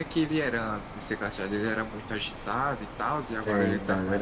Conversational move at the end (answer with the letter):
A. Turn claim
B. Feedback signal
A